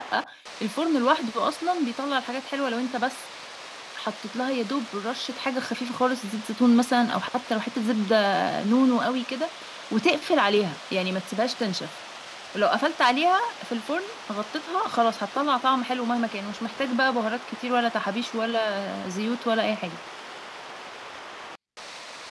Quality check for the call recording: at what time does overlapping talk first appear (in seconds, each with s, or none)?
none